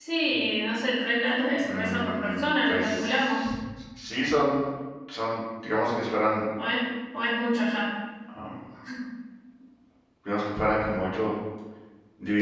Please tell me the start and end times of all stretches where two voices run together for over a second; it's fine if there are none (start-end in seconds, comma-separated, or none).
1.7-3.4